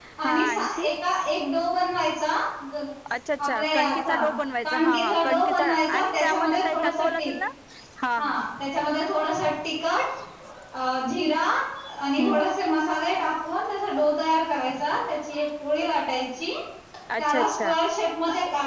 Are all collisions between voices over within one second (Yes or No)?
No